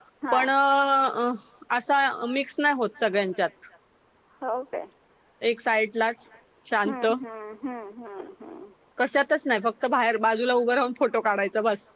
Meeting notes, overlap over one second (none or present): none